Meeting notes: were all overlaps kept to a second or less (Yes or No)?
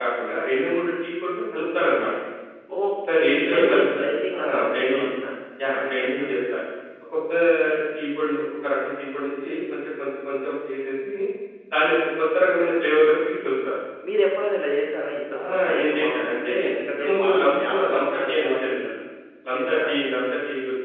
No